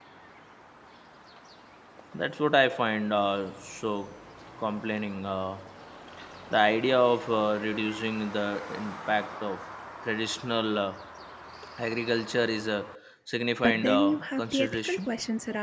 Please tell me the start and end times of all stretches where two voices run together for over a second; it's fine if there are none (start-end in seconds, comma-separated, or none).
13.6-15.1